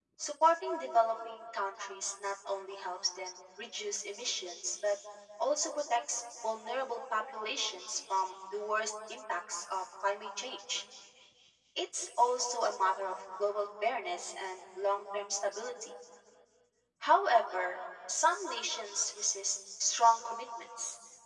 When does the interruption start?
none

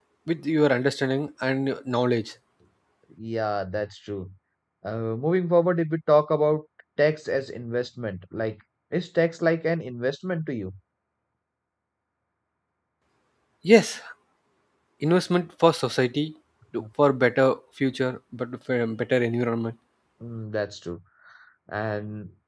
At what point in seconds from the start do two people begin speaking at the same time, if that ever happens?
none

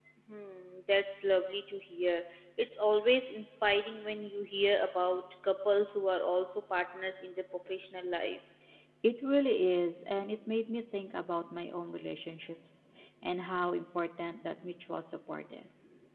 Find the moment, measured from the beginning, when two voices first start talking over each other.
none

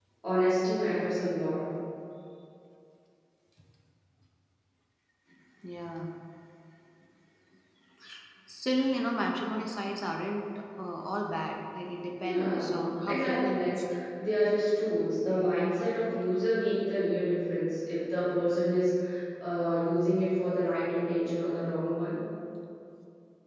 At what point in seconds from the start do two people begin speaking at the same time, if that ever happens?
12.2 s

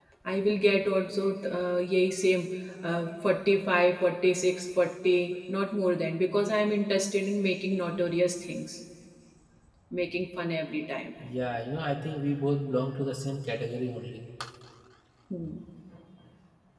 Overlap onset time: none

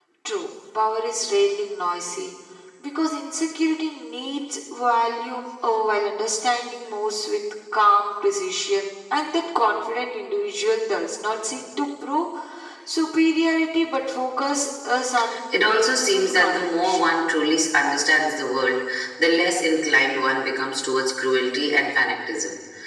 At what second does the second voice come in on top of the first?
15.5 s

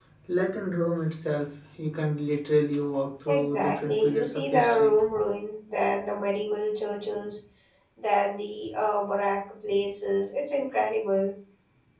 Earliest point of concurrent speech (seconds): 3.3 s

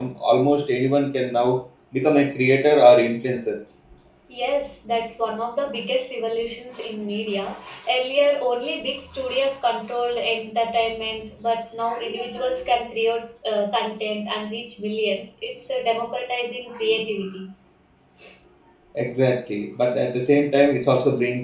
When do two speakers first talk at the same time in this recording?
none

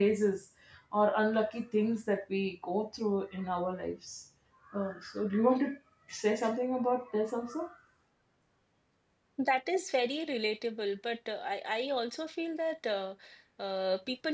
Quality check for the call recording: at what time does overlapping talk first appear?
none

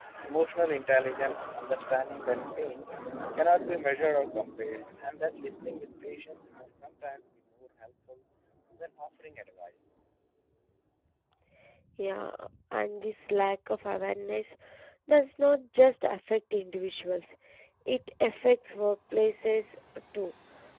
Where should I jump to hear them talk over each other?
none

